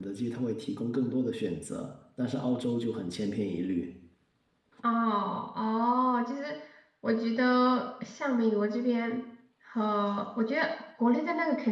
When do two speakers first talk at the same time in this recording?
none

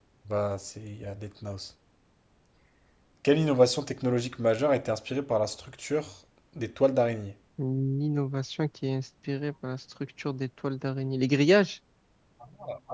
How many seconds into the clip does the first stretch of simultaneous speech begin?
none

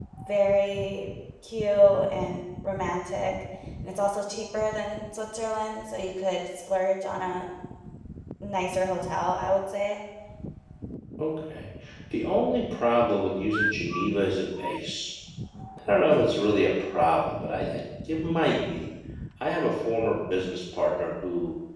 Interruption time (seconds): none

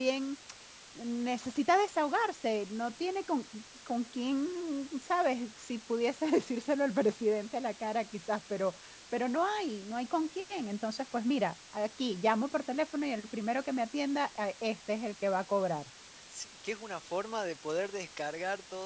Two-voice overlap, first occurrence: none

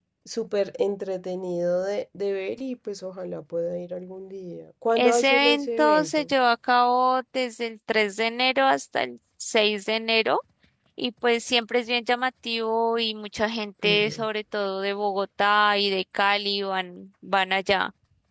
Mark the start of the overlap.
5 s

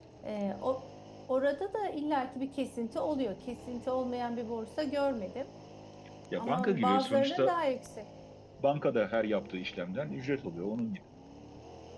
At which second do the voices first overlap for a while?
6 s

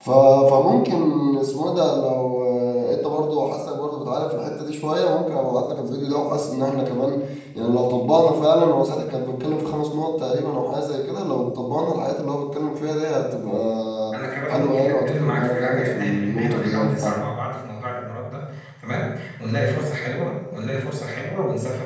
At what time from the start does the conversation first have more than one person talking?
14 s

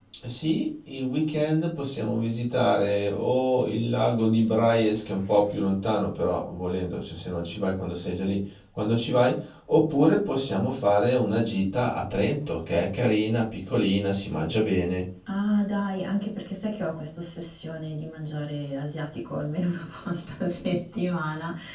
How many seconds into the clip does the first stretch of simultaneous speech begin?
none

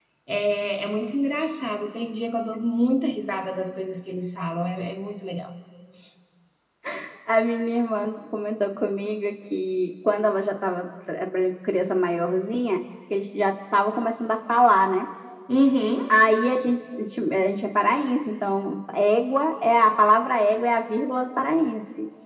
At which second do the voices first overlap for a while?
none

